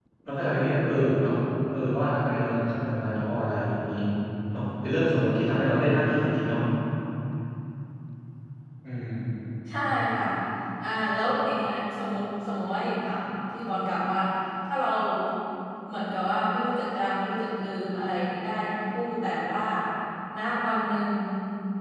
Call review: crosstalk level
none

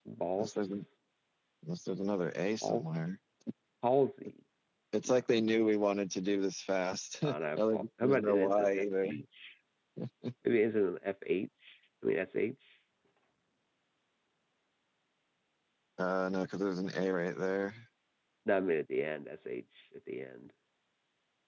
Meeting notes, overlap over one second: present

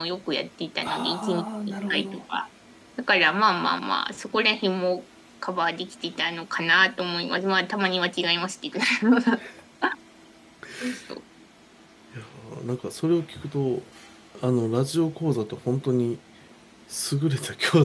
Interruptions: present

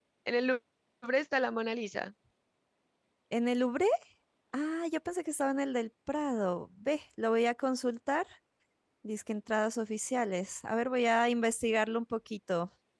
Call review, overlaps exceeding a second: none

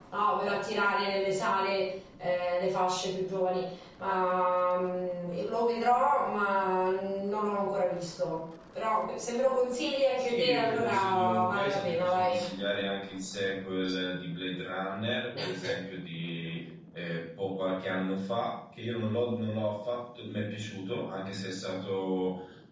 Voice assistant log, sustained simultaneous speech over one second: present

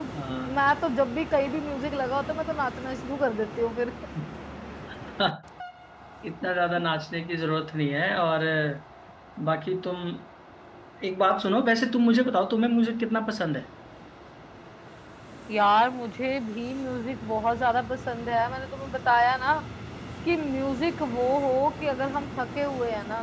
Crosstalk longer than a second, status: none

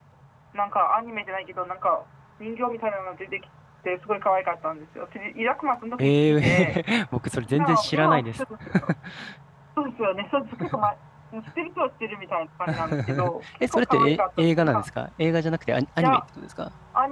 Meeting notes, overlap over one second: present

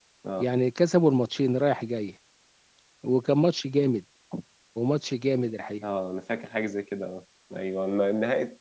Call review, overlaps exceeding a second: none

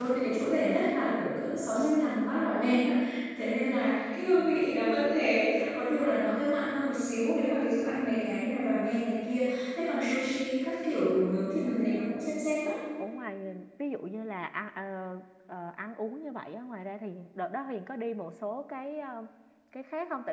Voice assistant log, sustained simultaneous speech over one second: none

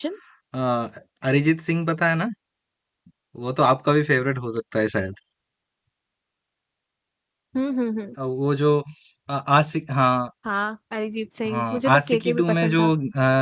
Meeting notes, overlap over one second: present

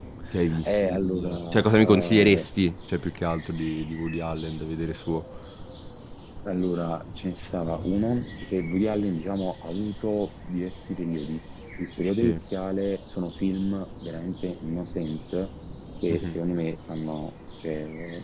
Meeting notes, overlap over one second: present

